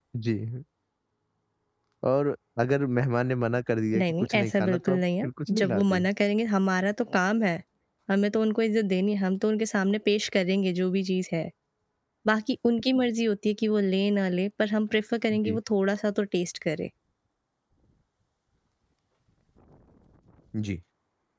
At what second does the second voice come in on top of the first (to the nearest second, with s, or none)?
4 s